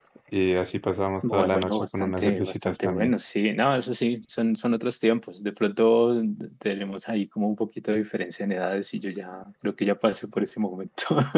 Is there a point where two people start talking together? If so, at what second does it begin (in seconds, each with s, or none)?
1.2 s